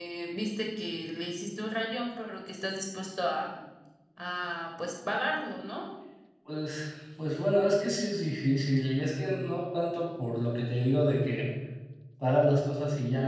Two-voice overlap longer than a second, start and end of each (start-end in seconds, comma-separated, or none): none